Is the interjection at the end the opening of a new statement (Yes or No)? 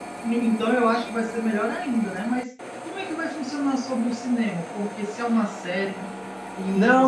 Yes